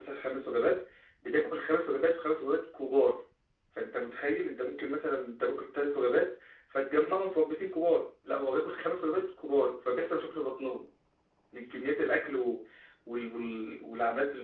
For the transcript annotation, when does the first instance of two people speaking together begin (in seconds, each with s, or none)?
none